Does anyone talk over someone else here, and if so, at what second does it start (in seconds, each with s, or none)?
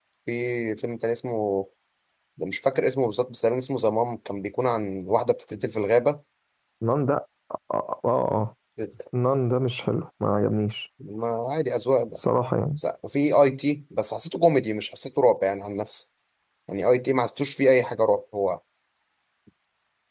none